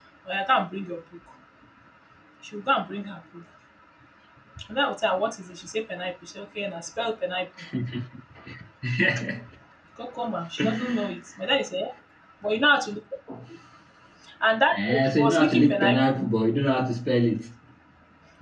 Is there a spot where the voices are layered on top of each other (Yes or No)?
Yes